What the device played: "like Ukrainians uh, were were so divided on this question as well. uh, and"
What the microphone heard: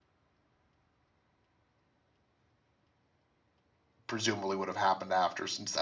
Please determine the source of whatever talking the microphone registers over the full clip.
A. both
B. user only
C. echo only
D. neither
B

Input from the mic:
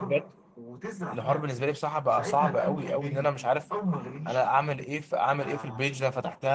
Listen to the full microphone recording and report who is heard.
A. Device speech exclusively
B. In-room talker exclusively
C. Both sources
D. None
C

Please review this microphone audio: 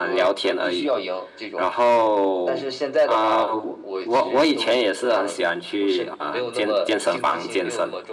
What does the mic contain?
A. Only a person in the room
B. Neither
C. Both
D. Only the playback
D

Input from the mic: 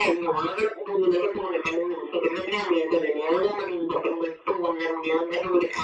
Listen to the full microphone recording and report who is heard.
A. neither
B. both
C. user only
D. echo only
D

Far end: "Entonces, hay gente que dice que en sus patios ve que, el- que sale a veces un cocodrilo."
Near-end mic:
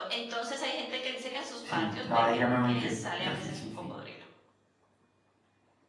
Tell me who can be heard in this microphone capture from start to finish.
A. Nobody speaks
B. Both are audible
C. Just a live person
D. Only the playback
B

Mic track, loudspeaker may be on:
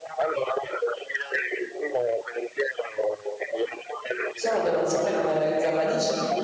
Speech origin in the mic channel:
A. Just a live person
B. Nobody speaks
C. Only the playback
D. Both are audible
D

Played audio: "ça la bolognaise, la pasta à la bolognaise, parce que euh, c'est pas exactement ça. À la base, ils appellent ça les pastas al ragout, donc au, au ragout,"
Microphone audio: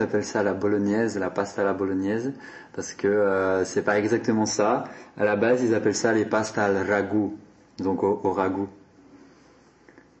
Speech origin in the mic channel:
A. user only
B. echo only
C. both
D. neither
B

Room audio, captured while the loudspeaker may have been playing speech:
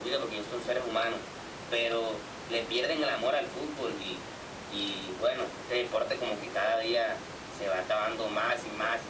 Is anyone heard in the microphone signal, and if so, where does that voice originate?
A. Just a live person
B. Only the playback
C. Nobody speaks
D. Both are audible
B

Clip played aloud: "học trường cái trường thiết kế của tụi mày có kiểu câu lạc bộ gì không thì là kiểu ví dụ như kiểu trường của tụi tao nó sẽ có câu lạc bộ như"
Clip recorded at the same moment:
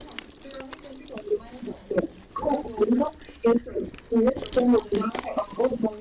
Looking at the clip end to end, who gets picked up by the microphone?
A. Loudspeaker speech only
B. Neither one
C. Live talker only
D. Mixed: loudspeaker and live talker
A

